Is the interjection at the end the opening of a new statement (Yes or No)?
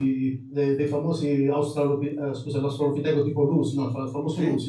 No